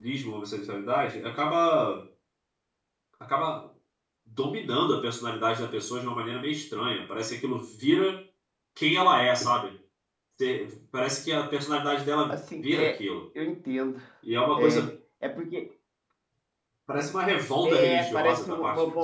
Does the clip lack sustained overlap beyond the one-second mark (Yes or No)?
No